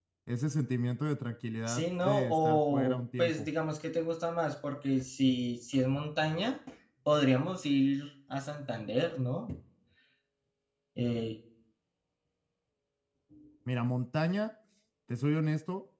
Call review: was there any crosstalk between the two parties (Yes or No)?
Yes